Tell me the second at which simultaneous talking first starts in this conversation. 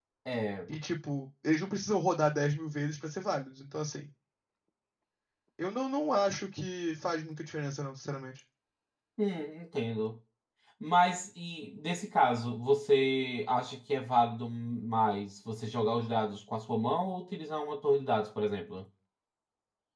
none

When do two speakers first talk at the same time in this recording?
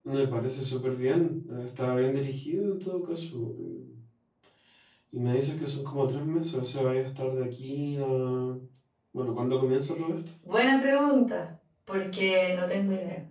none

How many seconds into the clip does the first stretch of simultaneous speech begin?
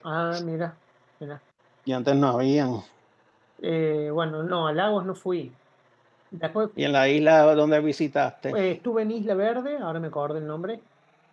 none

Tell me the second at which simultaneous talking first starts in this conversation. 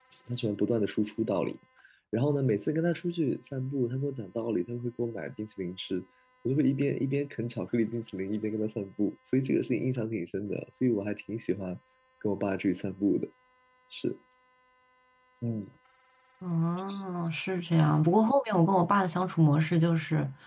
none

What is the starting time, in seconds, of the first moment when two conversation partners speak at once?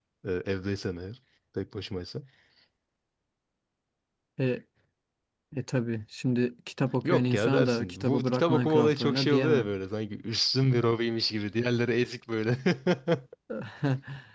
7 s

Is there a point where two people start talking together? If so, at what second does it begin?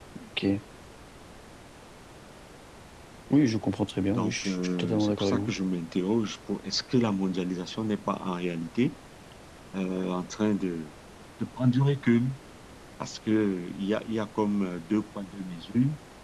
4 s

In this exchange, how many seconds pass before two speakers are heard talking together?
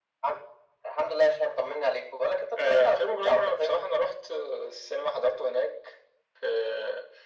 3 s

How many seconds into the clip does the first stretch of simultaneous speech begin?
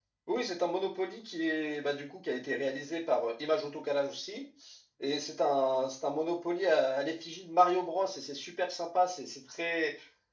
none

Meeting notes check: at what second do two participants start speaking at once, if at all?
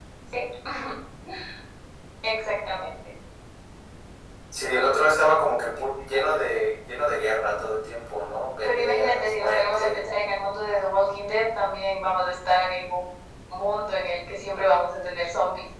9 s

